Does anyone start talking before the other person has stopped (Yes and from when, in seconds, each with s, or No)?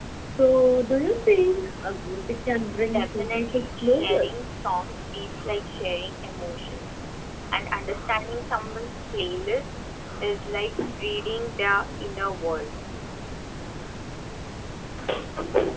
Yes, from 2.9 s